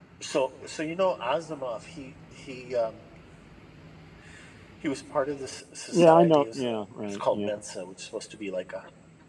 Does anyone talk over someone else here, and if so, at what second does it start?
5.9 s

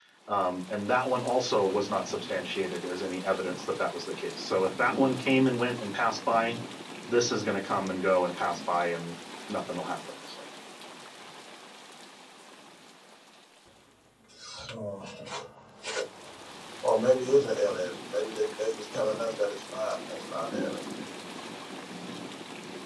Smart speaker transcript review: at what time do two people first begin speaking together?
none

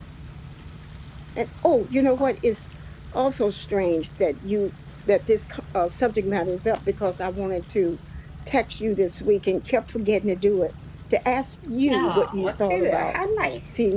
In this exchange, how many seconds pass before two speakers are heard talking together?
11.9 s

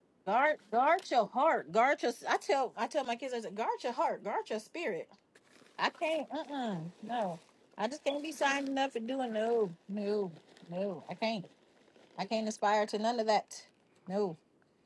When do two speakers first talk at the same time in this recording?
none

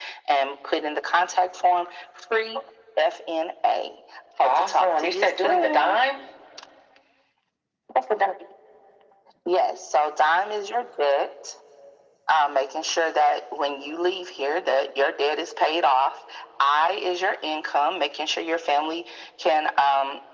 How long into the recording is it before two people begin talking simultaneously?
4.4 s

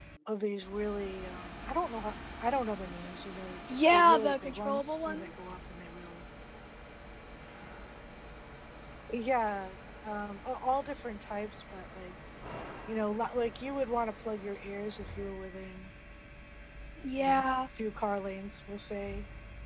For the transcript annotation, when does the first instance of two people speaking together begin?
3.9 s

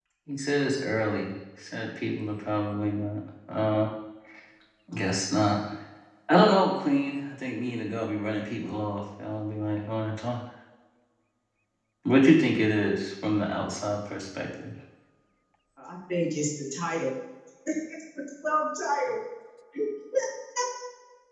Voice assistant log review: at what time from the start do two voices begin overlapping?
none

